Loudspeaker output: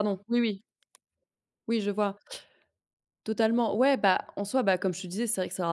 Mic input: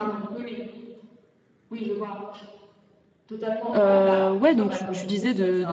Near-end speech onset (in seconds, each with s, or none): 3.7 s